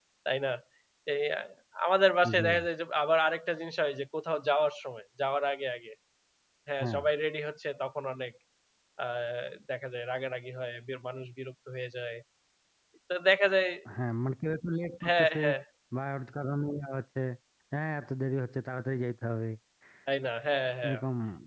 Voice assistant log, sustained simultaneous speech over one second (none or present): none